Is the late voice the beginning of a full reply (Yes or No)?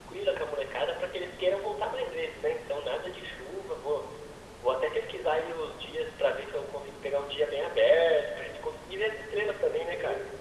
Yes